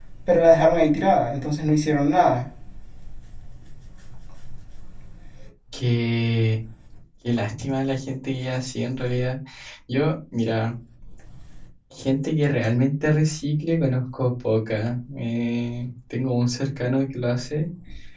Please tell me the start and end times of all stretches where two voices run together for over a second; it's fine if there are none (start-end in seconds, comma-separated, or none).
none